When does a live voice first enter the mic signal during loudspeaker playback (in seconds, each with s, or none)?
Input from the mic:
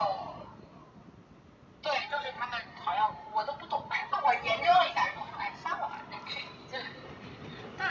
none